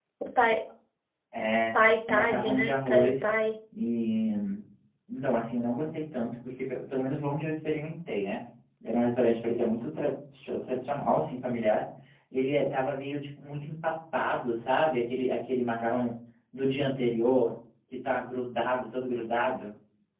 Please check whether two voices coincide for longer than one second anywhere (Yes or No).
Yes